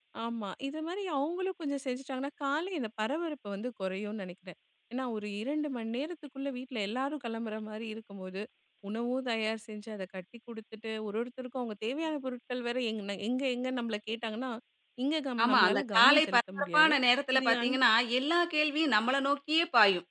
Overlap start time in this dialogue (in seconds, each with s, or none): 15.4 s